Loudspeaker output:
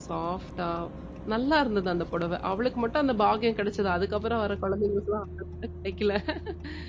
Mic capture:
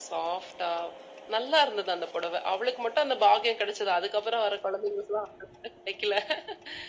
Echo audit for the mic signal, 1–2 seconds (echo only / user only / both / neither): echo only